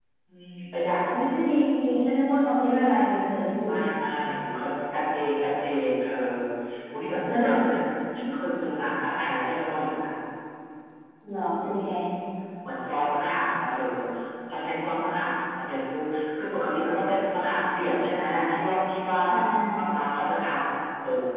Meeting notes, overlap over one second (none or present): none